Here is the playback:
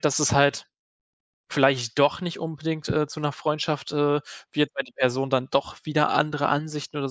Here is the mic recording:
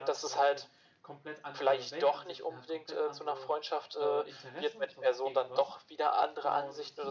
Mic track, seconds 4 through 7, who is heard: both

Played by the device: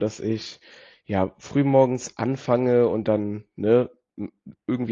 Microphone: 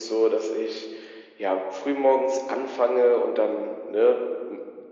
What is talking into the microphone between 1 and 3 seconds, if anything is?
echo only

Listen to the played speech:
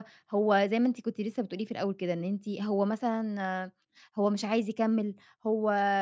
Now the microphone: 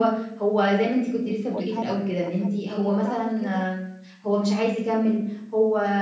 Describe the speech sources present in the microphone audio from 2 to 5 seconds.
both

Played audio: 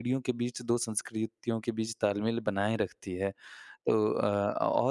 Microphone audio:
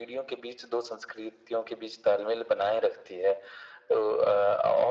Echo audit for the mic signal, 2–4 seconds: echo only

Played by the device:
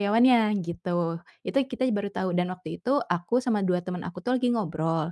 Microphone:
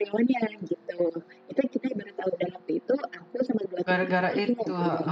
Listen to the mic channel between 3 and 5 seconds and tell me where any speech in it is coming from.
both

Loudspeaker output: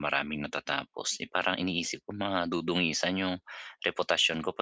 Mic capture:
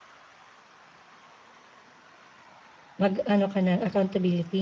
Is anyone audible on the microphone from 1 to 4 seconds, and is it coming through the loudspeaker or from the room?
user only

